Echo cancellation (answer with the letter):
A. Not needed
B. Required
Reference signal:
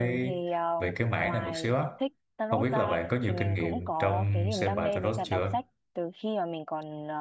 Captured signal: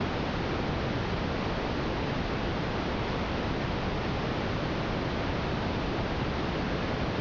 A